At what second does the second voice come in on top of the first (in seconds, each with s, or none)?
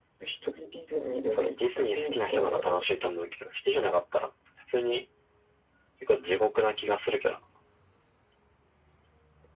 1.3 s